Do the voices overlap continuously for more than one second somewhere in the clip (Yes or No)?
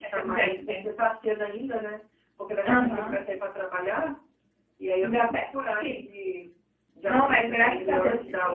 Yes